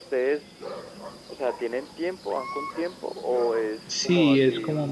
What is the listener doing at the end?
taking over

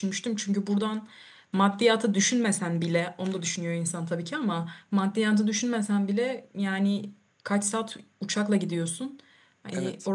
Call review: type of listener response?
listening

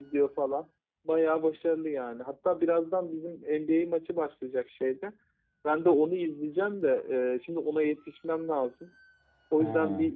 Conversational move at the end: listening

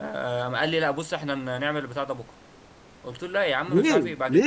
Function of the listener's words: listening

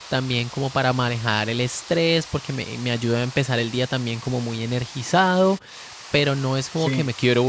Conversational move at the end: listening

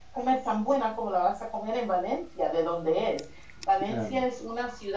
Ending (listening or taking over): listening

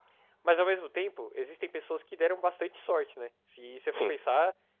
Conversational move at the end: listening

